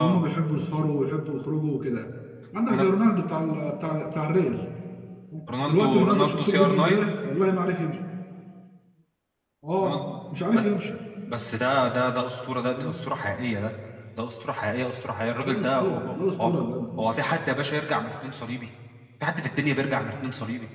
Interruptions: present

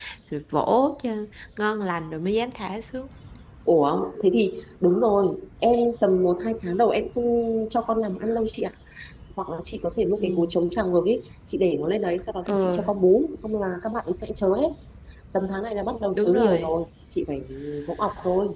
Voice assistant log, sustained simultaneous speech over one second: none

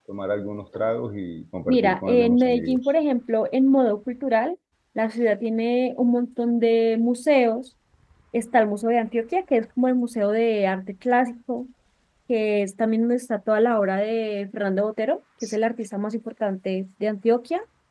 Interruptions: present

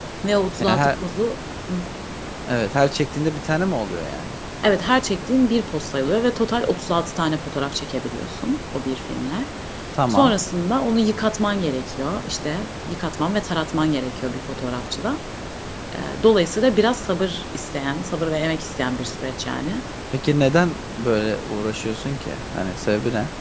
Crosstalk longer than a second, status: none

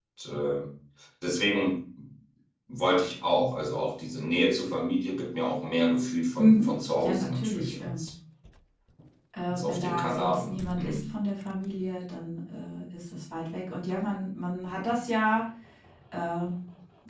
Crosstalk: present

